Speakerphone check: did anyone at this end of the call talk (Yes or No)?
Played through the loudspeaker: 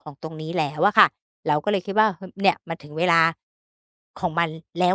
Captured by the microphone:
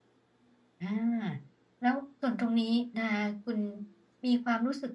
Yes